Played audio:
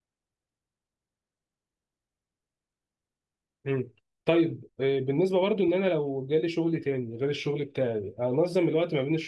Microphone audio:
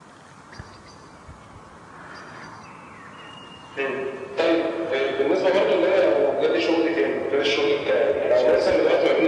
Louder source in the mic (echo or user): echo